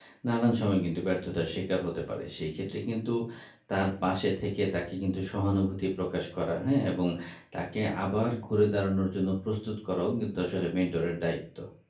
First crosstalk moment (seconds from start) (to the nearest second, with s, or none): none